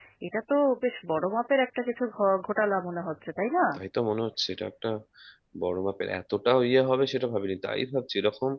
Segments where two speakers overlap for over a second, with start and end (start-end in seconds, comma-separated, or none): none